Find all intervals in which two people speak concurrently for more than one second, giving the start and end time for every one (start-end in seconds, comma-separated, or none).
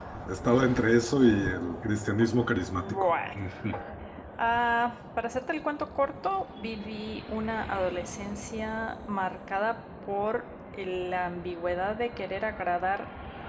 none